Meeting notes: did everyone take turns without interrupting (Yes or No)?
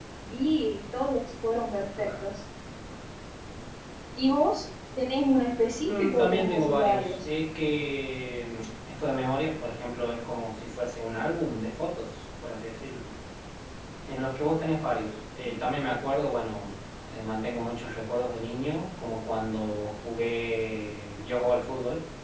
No